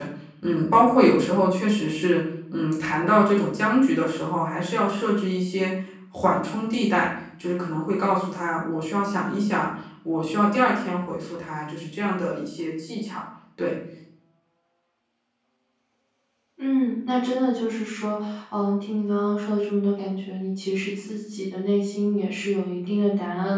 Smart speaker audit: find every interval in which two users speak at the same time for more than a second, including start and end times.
none

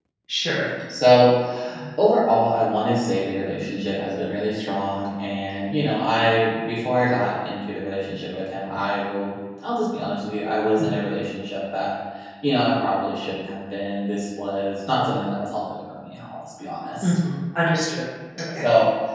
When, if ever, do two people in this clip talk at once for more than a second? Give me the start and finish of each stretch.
none

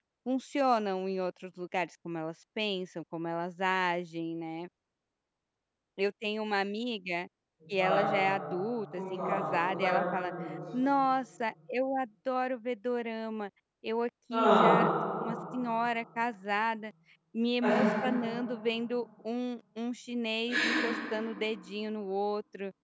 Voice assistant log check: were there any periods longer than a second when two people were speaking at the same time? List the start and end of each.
9.0-10.3

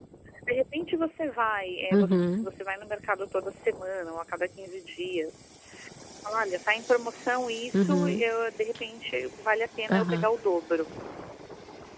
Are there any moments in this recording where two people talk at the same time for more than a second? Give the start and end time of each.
none

